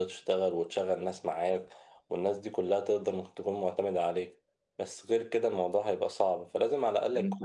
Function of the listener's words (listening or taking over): taking over